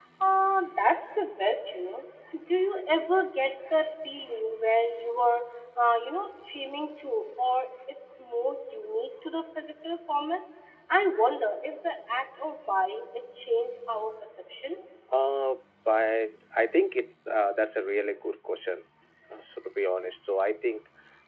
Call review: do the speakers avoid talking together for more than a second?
Yes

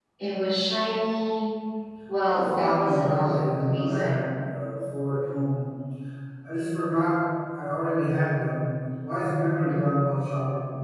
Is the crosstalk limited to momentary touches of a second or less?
No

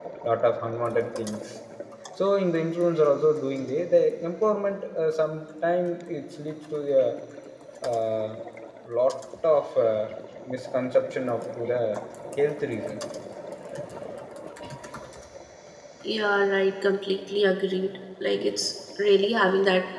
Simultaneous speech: No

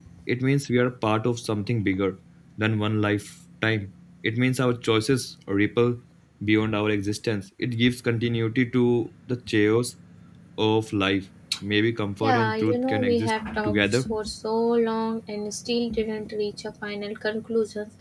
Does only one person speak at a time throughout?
No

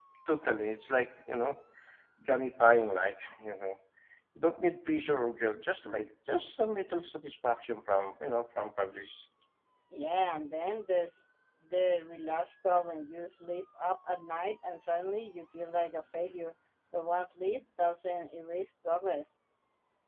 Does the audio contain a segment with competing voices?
No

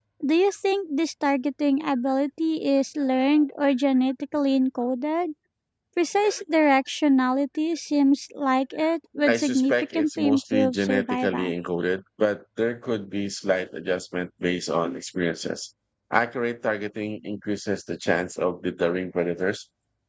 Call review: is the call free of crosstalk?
No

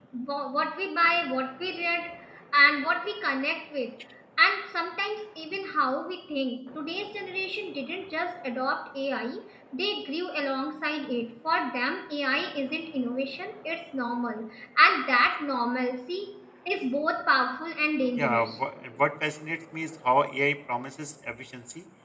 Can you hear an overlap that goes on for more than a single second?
No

